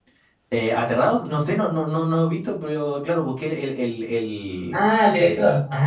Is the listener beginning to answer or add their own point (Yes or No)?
Yes